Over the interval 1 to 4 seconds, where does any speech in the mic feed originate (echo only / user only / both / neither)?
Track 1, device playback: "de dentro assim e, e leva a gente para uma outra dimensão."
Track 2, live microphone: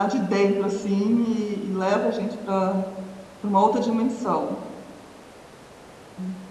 echo only